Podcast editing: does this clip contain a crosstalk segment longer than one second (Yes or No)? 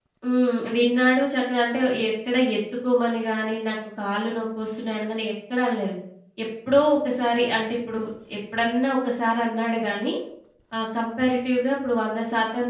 No